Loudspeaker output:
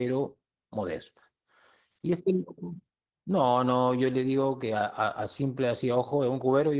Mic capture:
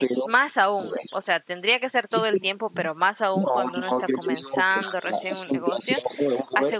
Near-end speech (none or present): present